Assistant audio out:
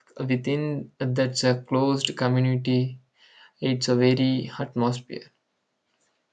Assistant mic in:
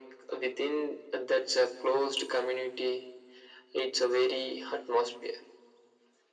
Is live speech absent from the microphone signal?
Yes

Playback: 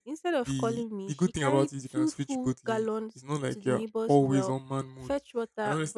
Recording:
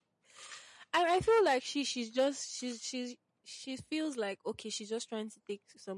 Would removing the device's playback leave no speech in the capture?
No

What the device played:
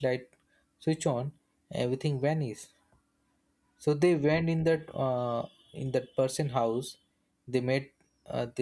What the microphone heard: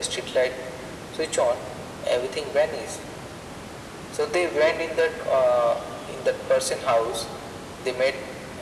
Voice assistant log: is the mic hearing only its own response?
Yes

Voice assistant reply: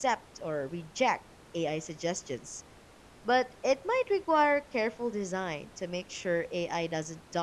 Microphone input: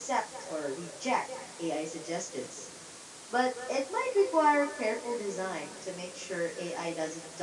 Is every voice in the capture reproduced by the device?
Yes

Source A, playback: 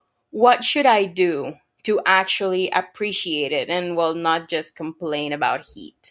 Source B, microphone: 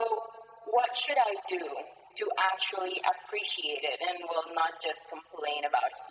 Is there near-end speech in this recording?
No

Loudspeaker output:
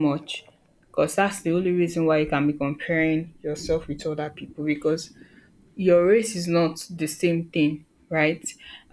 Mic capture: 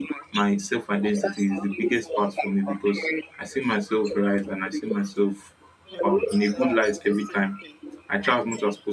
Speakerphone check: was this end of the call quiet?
No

